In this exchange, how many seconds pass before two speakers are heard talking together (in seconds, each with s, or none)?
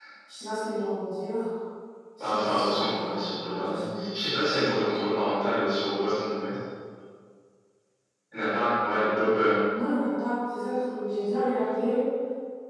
2.2 s